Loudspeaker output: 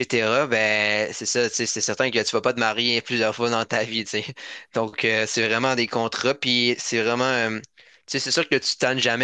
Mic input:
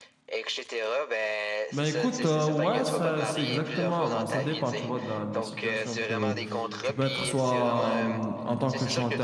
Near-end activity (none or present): present